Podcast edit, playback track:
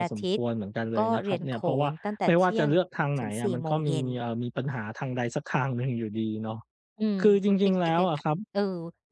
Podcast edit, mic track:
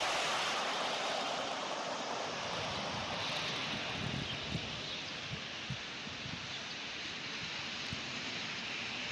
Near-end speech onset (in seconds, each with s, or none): none